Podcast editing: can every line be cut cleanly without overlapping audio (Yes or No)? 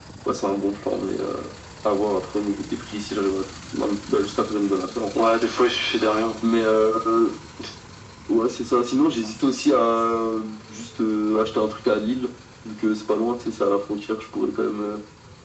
Yes